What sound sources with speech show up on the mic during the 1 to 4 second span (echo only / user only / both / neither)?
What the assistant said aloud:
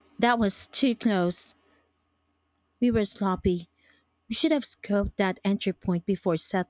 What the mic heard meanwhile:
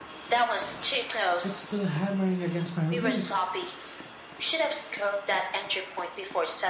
both